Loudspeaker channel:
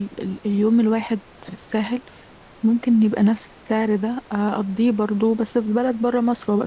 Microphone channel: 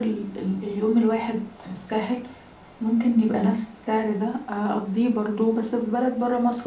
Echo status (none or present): present